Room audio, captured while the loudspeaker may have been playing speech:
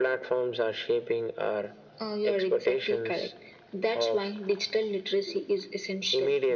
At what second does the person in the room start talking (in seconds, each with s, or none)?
none